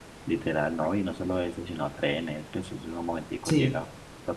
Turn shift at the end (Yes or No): No